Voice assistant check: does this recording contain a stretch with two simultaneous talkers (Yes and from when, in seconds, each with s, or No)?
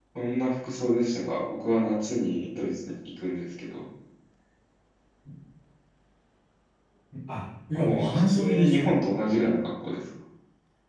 Yes, from 7.7 s